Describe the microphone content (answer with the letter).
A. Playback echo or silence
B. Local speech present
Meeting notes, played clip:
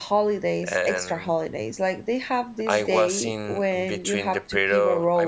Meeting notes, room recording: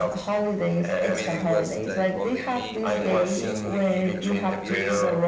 B